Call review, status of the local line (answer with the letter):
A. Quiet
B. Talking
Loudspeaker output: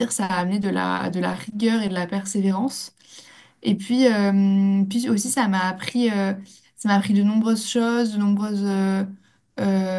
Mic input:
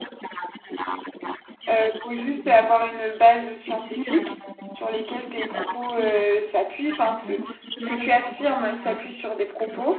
B